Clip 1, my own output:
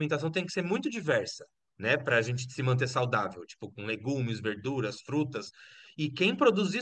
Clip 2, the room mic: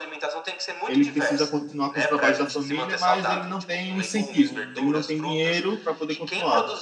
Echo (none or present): present